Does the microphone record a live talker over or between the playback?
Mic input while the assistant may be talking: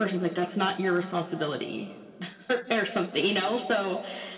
No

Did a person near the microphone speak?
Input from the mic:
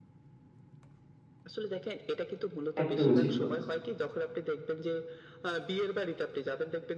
Yes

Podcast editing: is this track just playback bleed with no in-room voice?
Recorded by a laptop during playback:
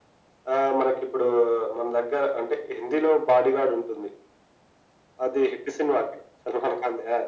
Yes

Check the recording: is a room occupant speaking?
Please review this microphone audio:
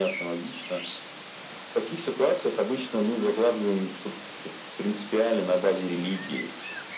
No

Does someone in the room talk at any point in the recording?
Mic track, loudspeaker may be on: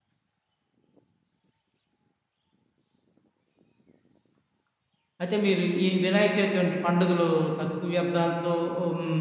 Yes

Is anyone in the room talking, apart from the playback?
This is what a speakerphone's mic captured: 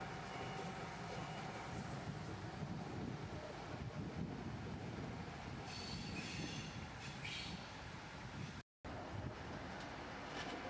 No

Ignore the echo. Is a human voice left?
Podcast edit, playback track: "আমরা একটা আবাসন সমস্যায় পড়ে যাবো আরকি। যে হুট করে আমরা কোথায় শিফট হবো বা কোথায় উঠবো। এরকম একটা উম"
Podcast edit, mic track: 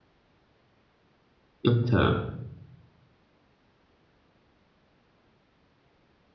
Yes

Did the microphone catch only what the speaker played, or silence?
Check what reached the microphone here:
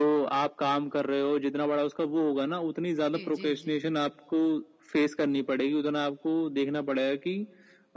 No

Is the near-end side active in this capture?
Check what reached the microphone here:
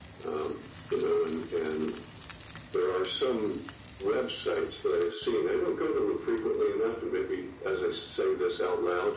No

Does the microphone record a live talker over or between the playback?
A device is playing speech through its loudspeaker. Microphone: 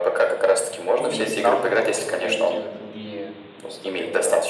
Yes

